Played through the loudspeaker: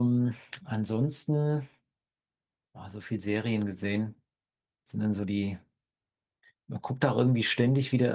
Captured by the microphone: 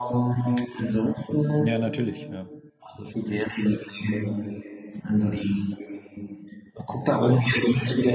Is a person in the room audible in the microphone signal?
Yes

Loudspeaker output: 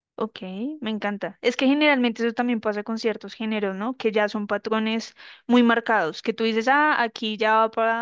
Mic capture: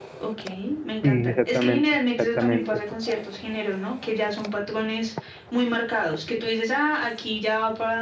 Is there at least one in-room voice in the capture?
Yes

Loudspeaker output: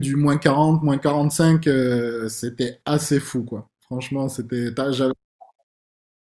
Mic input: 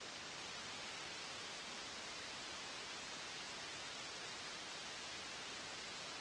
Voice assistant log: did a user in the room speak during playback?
No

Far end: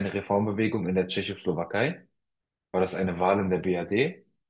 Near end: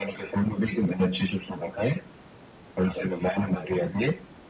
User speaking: No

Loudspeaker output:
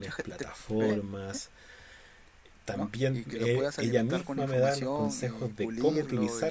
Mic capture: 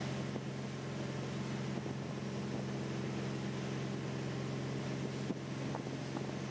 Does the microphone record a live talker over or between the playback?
No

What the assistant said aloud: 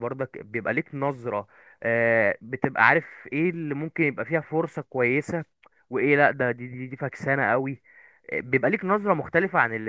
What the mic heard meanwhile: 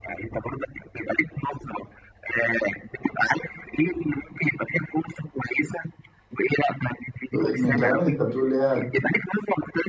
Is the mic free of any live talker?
No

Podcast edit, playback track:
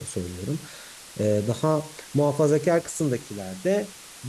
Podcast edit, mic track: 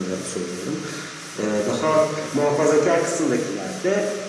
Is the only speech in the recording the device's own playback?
Yes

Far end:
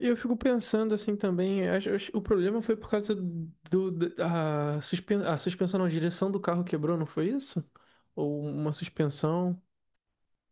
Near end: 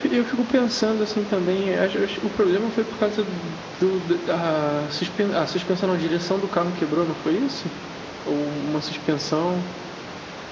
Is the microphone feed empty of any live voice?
Yes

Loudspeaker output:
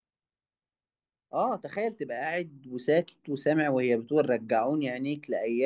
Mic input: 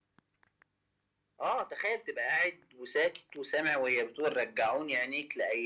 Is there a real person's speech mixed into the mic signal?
No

